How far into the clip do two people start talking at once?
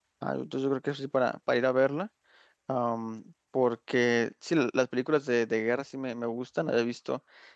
none

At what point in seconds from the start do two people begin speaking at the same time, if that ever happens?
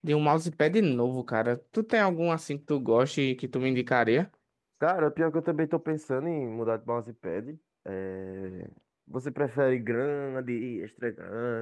none

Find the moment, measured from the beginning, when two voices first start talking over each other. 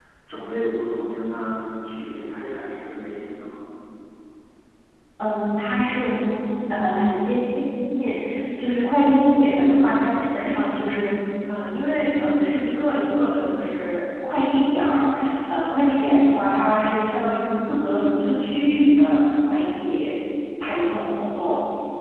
none

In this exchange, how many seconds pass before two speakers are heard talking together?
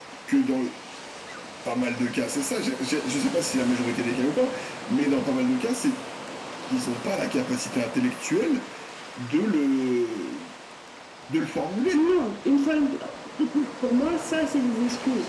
none

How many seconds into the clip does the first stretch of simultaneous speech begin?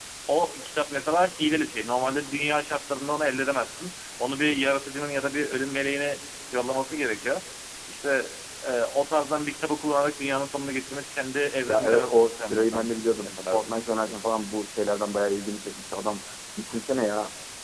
11.7 s

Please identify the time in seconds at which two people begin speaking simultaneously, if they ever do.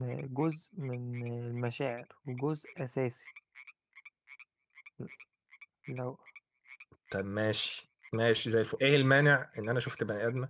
none

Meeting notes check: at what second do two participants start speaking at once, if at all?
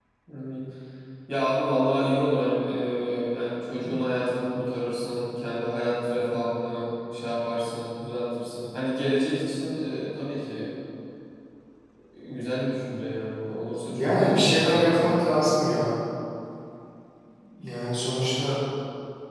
13.9 s

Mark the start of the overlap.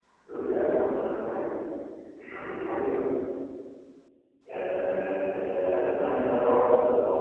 none

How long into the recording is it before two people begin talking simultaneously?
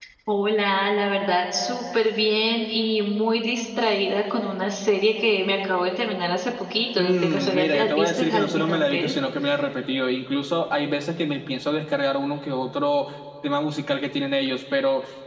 7.0 s

